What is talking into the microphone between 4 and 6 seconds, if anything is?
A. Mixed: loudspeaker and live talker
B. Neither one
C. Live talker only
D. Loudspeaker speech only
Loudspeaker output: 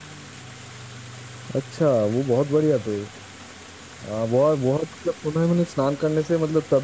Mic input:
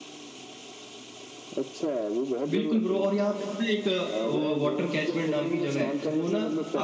A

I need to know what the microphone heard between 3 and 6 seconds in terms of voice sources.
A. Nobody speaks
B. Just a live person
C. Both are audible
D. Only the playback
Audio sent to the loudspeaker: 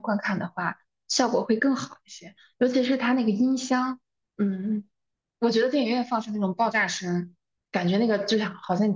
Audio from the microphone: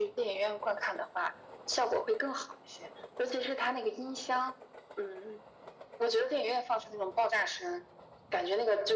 D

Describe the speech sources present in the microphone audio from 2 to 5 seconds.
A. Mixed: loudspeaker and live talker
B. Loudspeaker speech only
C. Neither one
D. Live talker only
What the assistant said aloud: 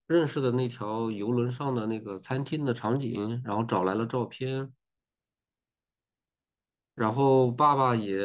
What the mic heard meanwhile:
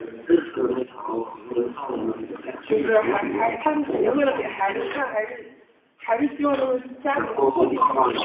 A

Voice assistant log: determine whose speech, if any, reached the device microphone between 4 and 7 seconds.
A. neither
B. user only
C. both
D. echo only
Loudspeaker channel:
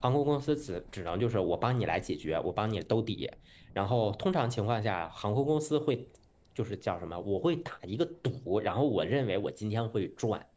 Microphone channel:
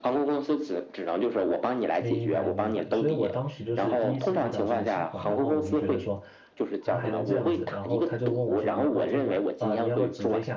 C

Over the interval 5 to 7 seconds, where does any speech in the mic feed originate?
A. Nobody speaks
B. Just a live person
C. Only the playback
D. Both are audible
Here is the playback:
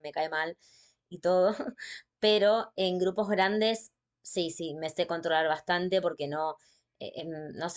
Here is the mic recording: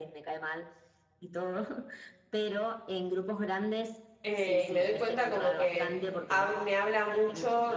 D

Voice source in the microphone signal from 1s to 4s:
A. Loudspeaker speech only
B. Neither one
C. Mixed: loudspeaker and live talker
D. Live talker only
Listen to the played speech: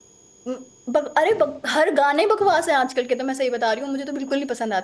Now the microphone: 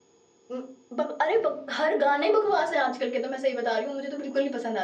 A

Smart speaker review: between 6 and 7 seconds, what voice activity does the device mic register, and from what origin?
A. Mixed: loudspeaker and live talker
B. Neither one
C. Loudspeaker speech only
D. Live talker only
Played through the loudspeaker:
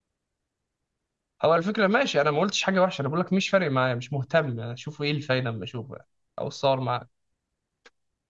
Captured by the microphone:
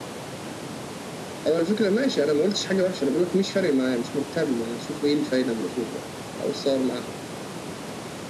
C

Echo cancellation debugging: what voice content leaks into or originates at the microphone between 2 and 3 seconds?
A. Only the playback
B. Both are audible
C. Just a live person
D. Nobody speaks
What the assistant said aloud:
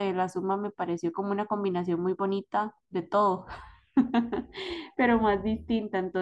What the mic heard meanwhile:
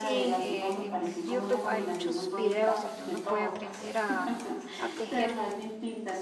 B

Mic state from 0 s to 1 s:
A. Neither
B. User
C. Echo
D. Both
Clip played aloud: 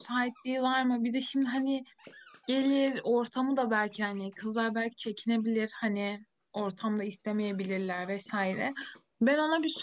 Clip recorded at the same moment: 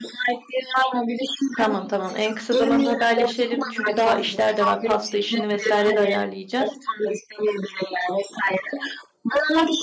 C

